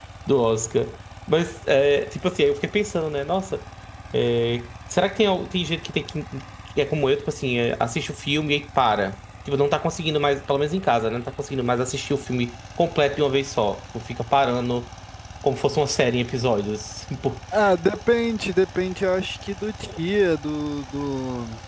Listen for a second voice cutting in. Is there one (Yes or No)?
No